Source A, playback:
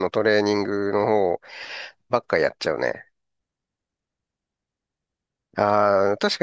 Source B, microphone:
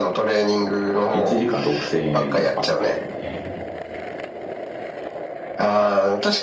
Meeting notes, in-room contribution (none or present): present